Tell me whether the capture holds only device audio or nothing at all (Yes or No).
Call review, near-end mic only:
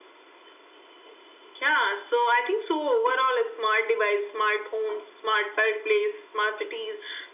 Yes